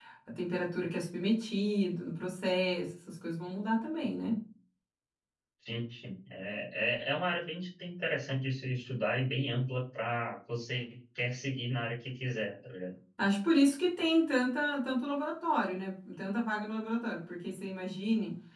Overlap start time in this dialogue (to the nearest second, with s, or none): none